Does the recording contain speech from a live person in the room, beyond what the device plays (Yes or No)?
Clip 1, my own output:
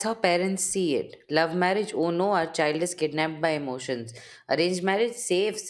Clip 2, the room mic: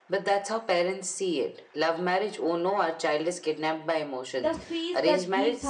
Yes